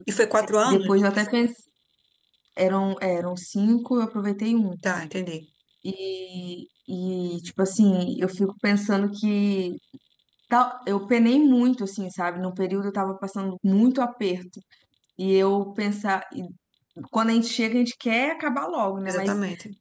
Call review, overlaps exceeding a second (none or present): none